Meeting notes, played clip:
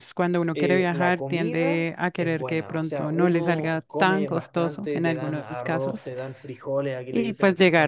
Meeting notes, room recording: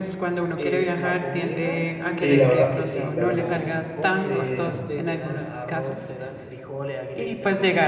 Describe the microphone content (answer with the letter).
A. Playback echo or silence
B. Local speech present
B